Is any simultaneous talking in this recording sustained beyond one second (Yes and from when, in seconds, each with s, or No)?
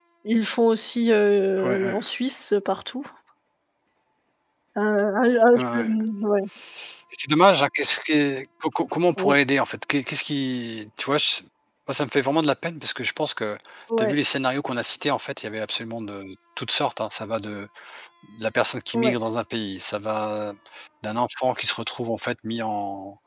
No